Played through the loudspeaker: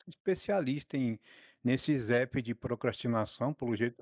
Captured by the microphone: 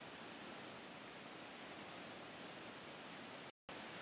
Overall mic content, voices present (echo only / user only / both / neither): neither